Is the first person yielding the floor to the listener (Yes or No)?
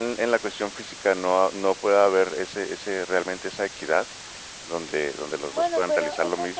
Yes